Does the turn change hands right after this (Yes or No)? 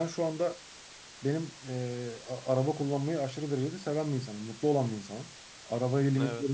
No